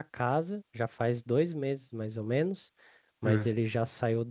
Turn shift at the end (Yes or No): No